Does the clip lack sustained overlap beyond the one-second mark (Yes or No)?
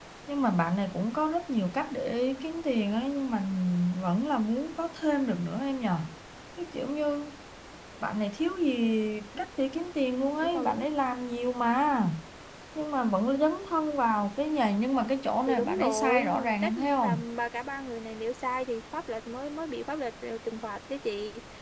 No